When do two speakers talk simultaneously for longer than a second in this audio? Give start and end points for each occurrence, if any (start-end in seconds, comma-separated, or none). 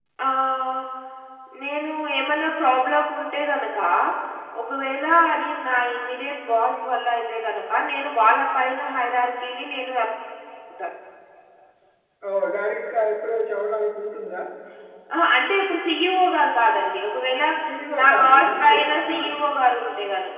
18.0-19.2